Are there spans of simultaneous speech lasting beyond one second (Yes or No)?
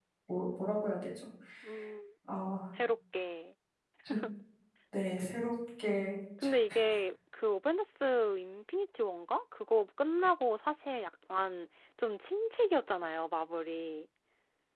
No